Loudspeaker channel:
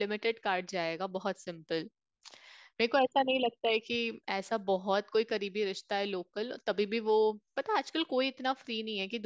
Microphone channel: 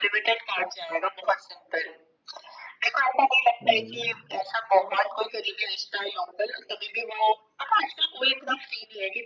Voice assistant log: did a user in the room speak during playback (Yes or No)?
Yes